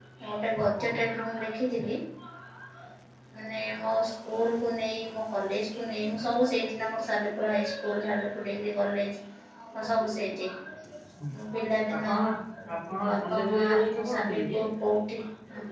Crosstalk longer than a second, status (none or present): present